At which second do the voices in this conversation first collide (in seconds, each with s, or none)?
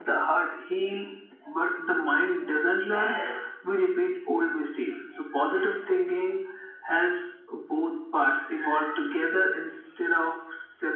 none